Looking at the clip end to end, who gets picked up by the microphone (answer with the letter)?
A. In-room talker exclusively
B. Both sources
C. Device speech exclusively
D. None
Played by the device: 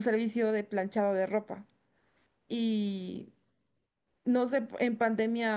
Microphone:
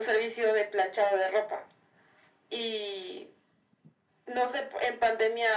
C